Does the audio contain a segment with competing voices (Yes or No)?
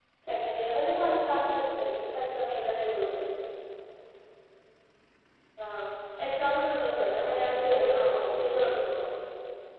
Yes